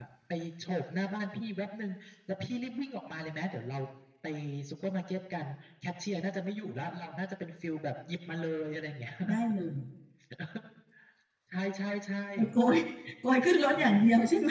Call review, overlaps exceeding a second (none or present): none